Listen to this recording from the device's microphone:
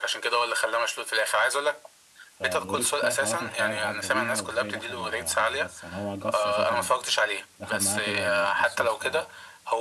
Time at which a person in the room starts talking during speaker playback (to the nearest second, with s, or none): 2 s